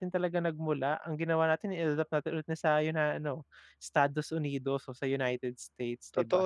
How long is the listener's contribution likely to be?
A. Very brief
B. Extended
B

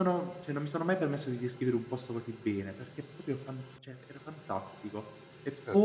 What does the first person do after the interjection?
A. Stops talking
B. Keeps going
A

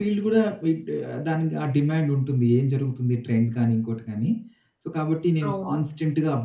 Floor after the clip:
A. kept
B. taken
A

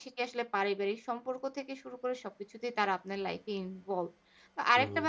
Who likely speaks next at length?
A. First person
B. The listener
A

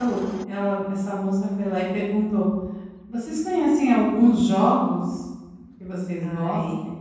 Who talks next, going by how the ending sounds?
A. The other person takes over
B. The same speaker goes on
B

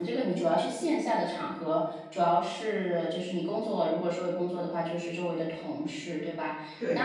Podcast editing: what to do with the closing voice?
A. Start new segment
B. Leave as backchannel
B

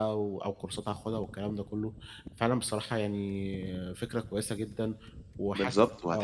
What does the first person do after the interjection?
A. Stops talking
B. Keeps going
A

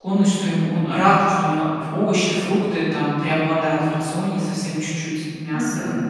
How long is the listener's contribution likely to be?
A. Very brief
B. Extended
B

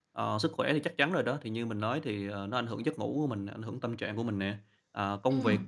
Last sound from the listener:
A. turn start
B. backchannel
B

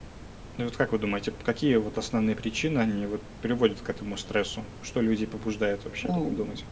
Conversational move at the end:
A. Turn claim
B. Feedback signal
A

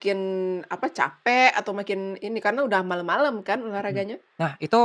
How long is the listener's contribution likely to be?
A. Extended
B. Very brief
A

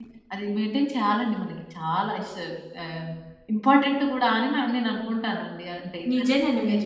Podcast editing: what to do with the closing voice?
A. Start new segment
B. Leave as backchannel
A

